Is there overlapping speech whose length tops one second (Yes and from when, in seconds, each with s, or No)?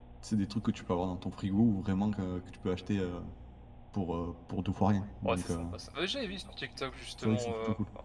No